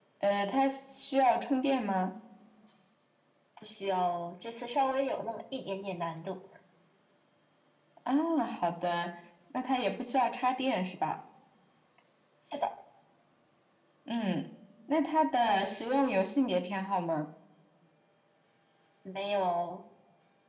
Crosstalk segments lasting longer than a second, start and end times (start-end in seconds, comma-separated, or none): none